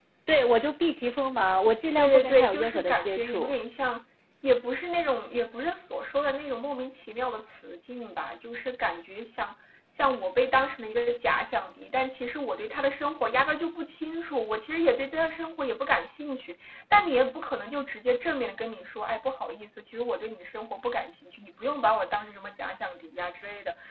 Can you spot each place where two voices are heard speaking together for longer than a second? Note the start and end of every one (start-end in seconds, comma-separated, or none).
2.0-3.5